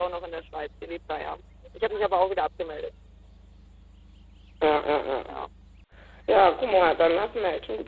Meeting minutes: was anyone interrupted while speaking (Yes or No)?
No